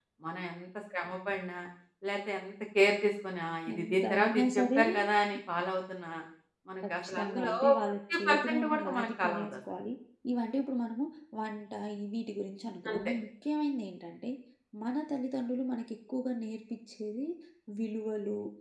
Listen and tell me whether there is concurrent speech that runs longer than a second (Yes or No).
Yes